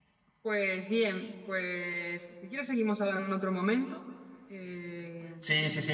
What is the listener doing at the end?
taking over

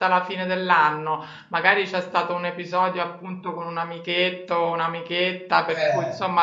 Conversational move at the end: listening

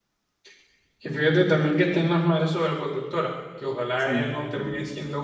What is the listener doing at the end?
listening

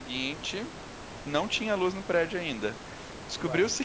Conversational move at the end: listening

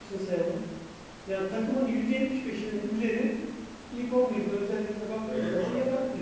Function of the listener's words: taking over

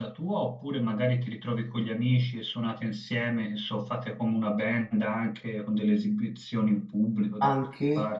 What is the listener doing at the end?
taking over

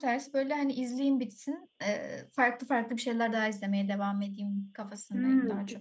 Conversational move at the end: taking over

